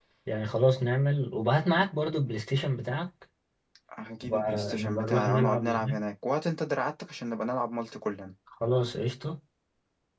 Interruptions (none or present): present